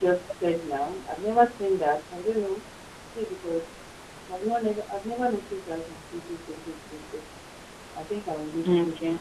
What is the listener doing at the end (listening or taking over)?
listening